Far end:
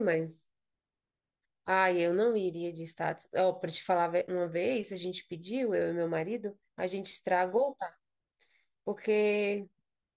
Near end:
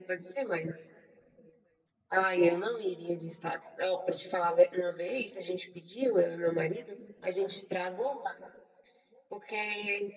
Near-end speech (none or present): none